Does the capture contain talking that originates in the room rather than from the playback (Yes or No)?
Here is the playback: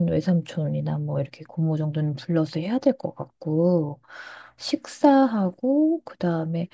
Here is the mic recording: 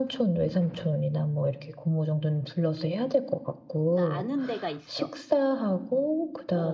Yes